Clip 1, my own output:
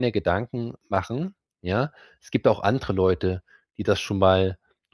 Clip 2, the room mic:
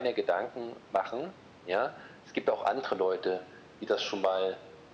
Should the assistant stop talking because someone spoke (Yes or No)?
No